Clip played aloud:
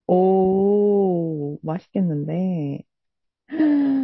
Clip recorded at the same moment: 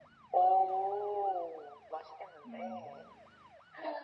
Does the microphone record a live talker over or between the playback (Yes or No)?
Yes